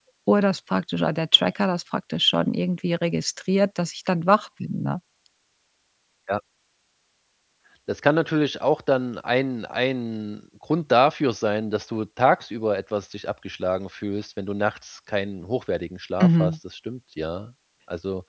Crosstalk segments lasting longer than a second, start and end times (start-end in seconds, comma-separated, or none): none